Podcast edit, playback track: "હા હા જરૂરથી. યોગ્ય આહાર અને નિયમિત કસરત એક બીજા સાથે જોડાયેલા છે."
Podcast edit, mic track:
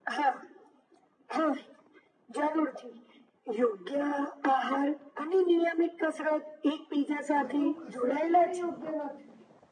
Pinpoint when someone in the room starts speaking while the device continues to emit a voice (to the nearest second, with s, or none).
7 s